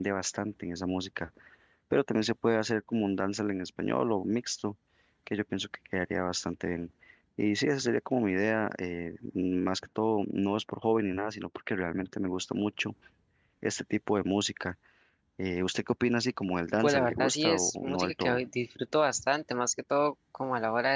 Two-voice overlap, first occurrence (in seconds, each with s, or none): 16.8 s